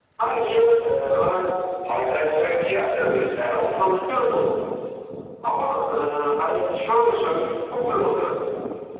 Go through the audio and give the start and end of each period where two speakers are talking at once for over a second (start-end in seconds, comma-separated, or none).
none